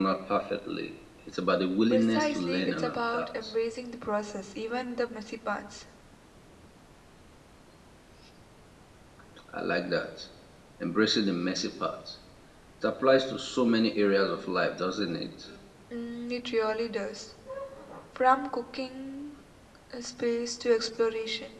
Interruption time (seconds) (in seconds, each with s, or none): 1.9 s